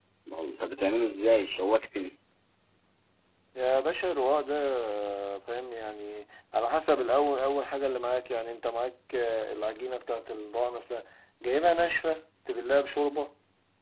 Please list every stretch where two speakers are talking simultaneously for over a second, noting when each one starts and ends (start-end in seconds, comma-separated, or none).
none